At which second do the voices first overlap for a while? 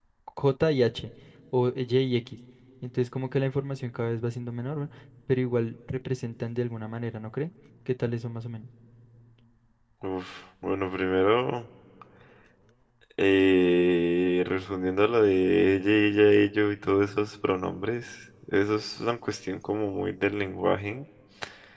none

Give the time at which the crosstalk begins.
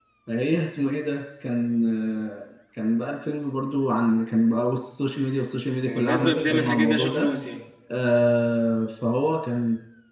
5.9 s

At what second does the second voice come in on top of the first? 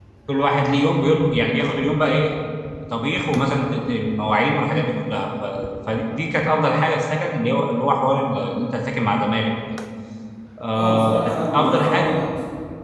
10.7 s

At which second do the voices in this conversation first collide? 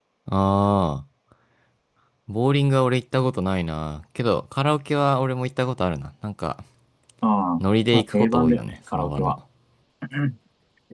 7.9 s

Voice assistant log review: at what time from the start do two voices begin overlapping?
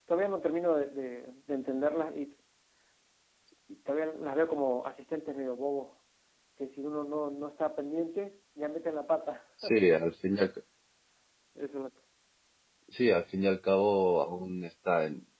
none

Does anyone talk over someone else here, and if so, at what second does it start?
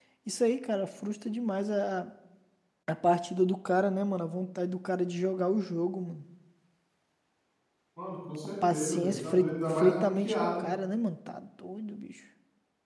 8.7 s

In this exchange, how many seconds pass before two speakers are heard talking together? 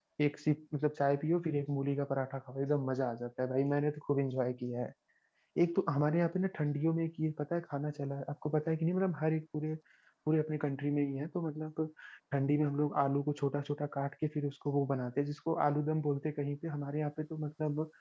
none

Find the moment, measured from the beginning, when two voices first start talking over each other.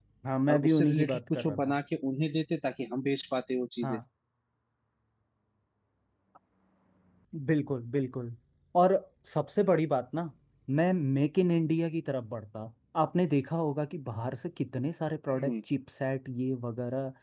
0.5 s

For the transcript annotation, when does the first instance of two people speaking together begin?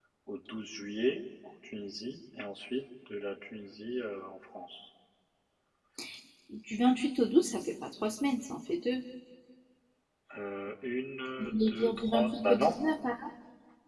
11.4 s

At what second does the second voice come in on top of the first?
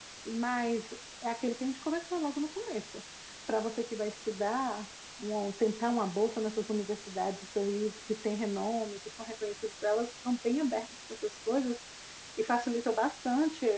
none

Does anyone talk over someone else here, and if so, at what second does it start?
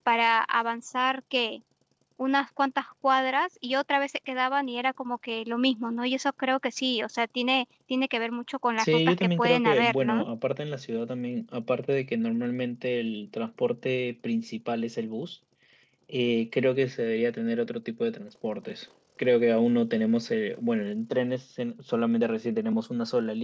8.8 s

